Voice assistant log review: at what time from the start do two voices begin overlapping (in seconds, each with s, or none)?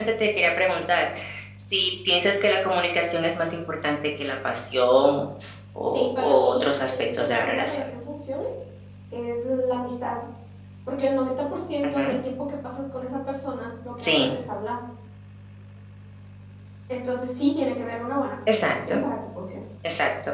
5.9 s